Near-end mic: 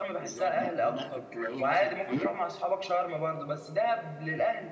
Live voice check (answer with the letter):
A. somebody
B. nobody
A